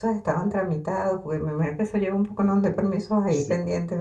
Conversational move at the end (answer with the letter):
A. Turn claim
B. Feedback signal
A